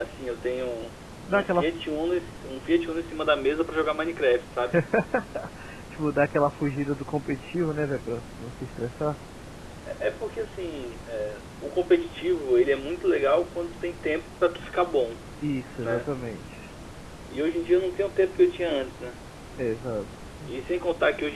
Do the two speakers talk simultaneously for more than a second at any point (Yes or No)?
No